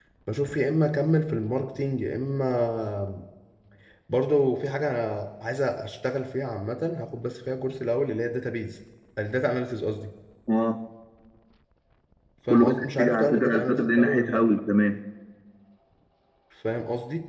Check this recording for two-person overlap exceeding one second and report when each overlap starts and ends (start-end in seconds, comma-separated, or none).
12.5-14.4